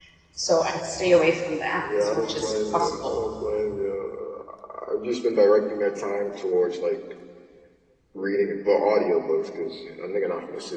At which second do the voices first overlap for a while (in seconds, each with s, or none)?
1.8 s